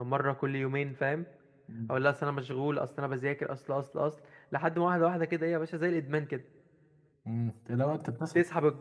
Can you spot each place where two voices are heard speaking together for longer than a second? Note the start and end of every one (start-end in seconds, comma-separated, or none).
none